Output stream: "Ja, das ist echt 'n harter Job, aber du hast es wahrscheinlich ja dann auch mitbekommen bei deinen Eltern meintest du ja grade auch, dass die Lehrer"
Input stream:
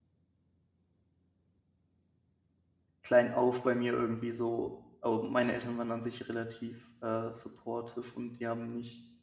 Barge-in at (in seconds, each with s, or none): 3.0 s